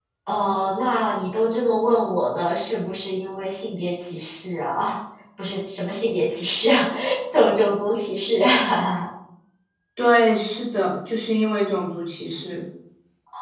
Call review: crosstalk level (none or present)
none